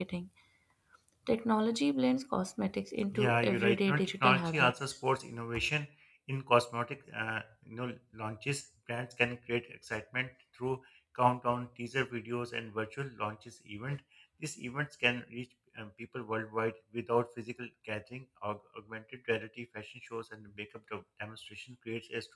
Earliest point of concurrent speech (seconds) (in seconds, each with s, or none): 3.1 s